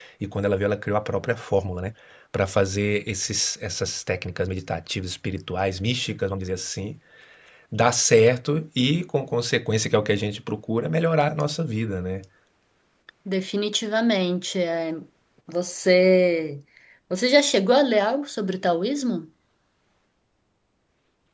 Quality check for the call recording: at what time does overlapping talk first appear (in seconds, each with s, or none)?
none